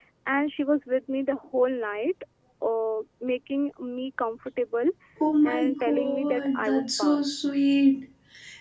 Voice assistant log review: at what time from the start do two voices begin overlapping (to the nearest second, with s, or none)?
5 s